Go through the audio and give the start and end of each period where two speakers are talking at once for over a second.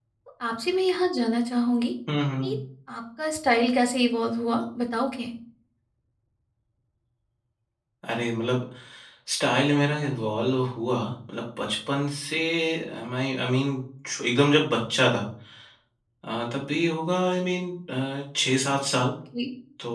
none

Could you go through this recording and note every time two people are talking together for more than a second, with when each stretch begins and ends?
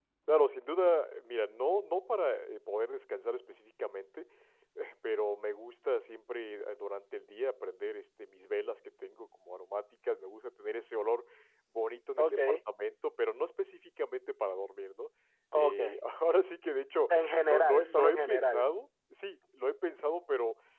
17.1-18.6

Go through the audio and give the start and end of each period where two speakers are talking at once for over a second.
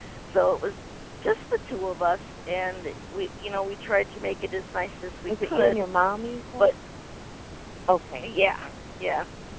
none

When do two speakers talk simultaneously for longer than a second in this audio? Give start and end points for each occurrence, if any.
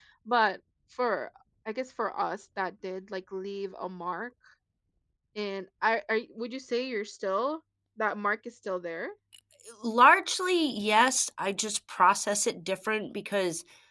none

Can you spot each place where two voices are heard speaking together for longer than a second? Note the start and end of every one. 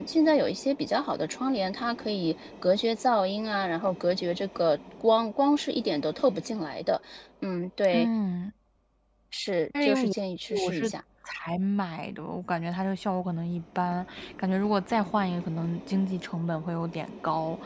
none

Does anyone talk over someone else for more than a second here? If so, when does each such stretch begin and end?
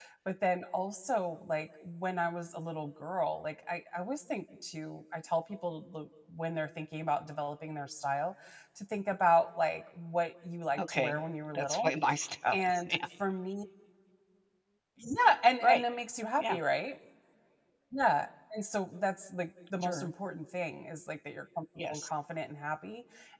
none

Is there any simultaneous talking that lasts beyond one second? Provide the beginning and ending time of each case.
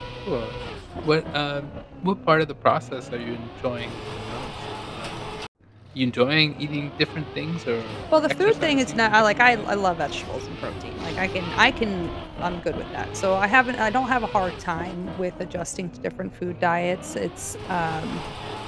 8.1-9.6

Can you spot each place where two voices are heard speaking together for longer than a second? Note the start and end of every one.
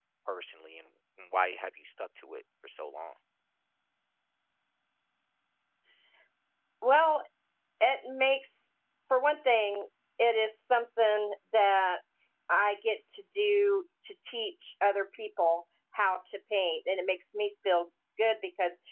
none

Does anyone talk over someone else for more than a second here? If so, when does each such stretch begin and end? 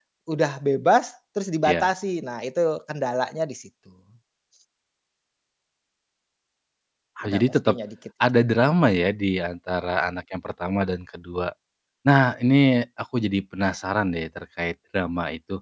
none

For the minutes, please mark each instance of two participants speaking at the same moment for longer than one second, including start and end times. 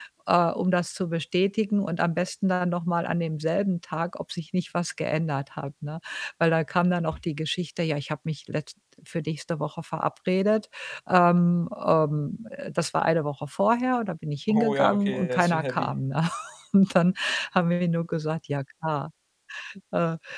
14.5-15.9

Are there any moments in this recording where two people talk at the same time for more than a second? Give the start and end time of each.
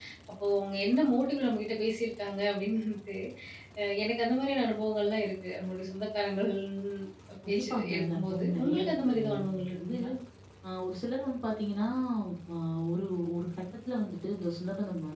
7.5-9.9

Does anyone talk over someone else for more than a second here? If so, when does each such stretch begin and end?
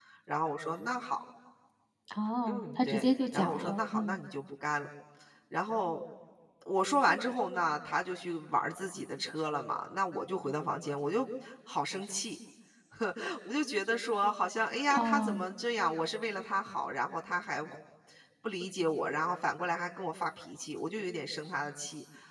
2.5-4.2

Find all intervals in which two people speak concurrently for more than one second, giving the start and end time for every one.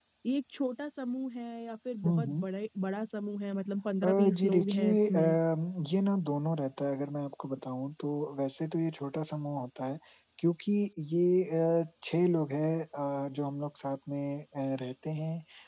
4.0-5.3

